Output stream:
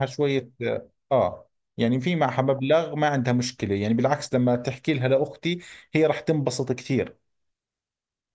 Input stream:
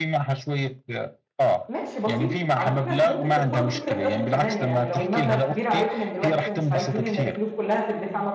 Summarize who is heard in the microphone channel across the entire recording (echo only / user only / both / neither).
both